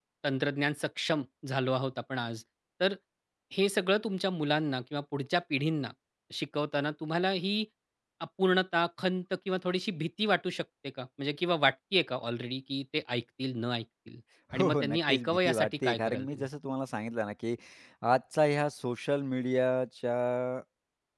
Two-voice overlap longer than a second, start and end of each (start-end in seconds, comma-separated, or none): 14.6-16.5